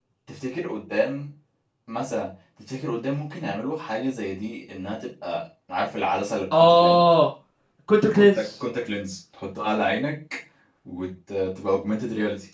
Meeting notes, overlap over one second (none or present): none